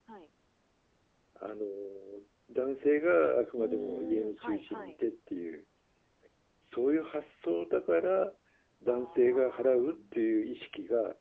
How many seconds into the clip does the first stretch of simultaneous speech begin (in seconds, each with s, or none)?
3.6 s